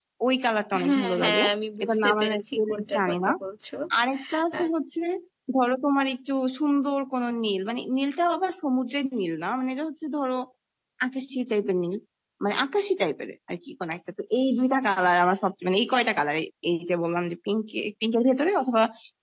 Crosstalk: present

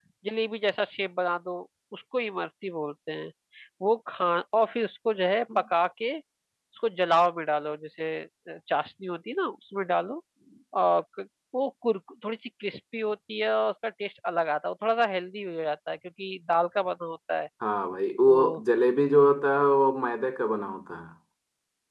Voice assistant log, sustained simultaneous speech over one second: none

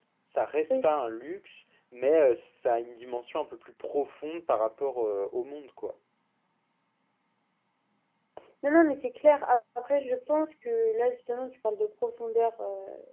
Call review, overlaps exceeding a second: none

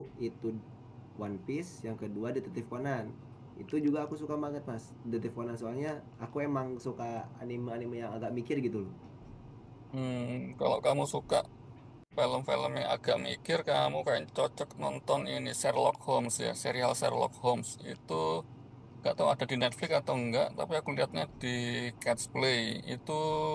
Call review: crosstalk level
none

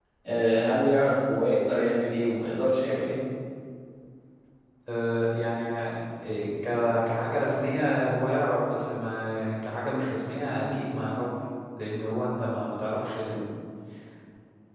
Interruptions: none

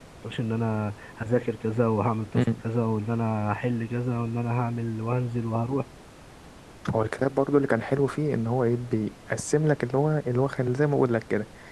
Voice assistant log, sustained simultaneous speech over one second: none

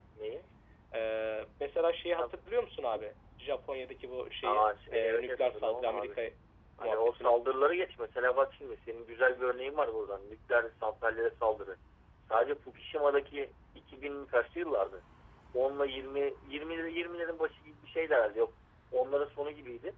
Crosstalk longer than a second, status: present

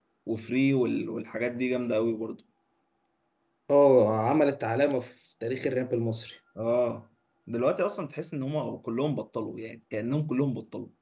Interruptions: none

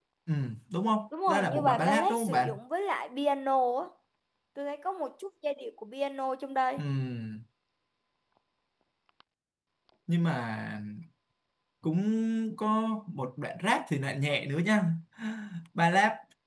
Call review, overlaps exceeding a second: present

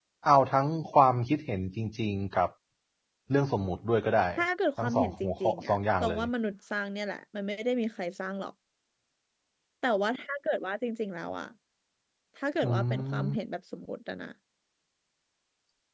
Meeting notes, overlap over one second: present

